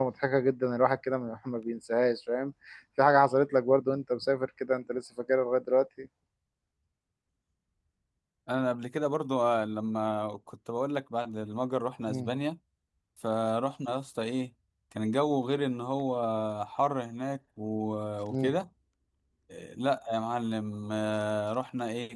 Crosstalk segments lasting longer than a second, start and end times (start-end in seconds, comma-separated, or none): none